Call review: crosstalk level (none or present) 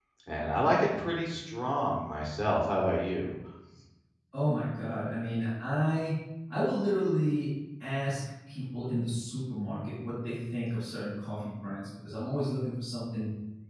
none